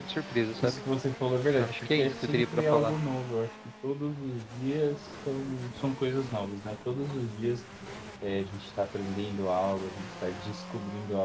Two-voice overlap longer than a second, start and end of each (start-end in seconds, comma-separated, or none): 1.6-2.9